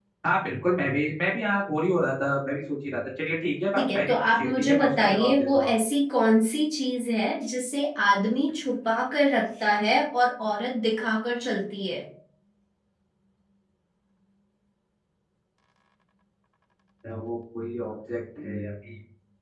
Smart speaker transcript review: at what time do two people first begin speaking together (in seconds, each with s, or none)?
3.8 s